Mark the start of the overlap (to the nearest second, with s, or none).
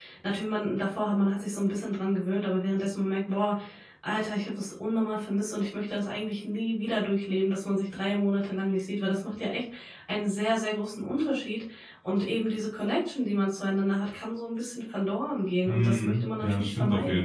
16 s